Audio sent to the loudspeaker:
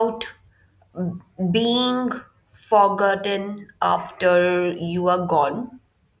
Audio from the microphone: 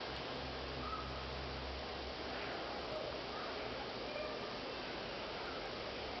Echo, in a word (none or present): none